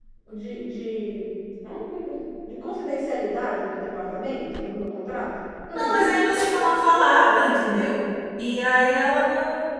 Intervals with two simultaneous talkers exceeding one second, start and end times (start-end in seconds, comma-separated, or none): 5.7-7.6